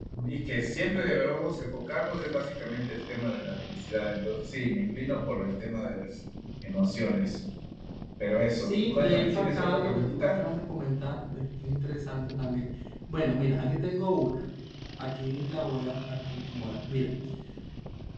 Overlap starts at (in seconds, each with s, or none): 8.6 s